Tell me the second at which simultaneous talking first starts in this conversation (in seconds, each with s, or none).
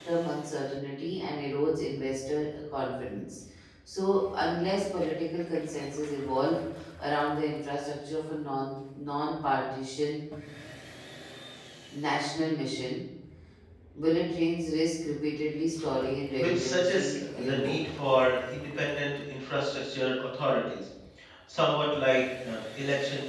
16.4 s